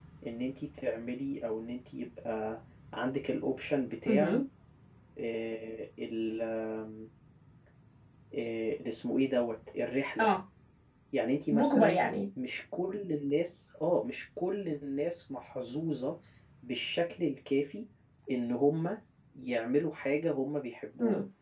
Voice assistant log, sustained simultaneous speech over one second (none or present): none